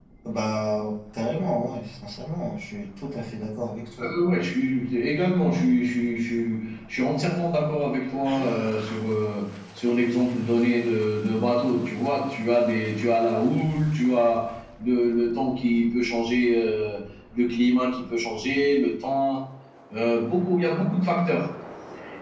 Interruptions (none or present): none